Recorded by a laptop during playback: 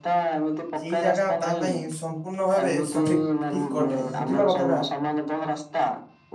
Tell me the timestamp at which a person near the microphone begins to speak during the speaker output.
1 s

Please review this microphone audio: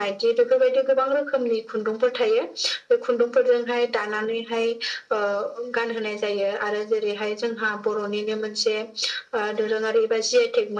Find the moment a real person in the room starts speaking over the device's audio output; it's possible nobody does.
none

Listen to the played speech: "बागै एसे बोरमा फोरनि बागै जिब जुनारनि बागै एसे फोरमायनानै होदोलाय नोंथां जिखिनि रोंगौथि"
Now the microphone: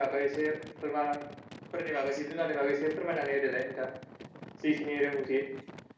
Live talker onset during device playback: none

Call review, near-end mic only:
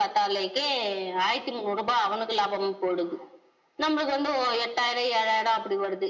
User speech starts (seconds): none

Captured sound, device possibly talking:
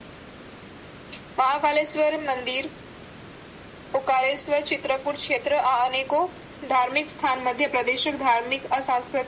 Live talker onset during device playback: none

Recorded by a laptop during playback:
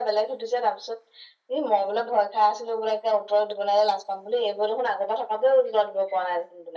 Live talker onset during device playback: none

